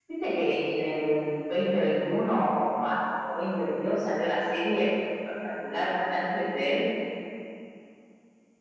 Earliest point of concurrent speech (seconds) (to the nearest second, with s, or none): none